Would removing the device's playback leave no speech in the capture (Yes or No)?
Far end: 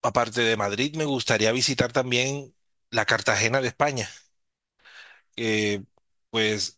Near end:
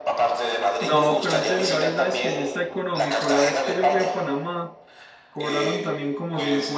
No